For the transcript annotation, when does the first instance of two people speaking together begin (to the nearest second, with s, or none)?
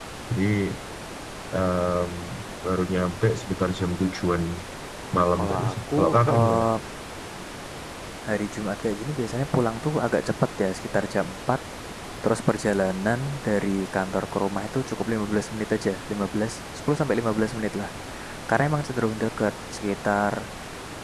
5 s